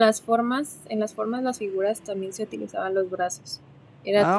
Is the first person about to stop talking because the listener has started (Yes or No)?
Yes